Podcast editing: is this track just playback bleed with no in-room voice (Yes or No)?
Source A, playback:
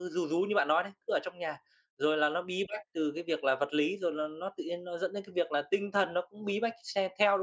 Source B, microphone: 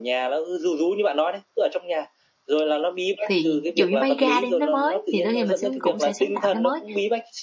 No